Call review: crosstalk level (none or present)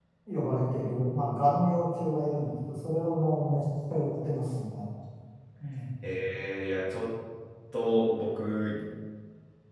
none